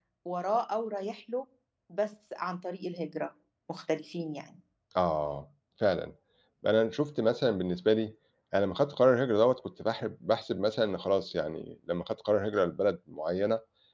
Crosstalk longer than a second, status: none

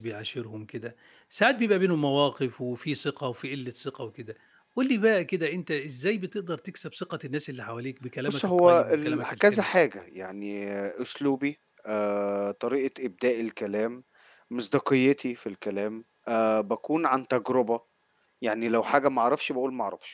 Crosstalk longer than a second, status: present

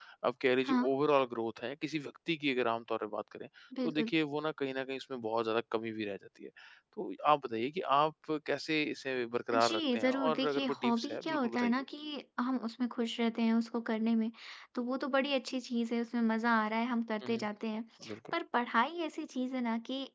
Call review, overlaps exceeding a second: present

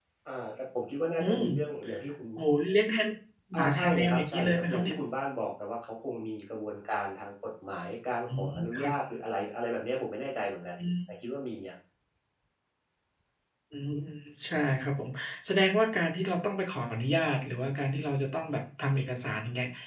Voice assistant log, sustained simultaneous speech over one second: present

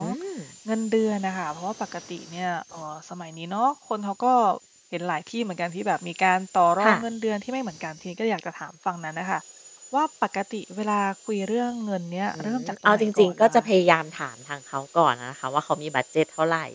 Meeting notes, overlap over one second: present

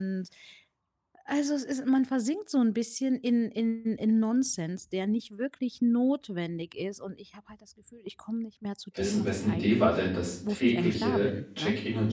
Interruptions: present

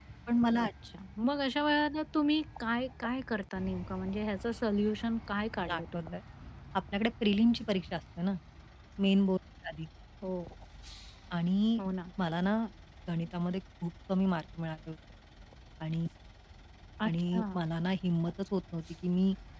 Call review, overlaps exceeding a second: none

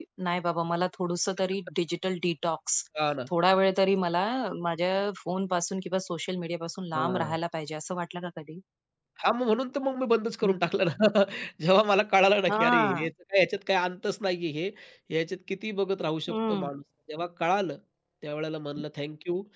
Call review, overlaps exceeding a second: none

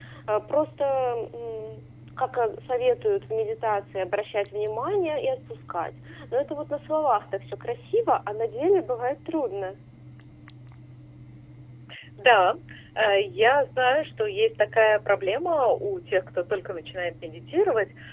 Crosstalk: none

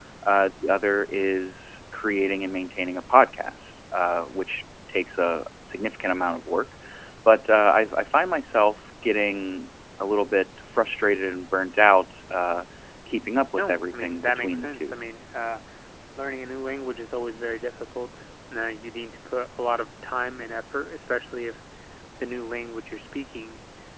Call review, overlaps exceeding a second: present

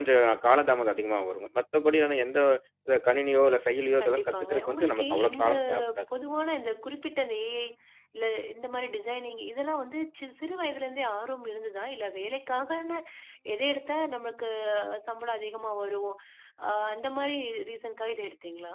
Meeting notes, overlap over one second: present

